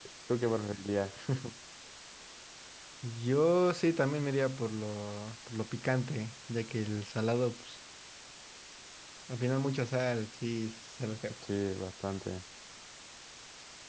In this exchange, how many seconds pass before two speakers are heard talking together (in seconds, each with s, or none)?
none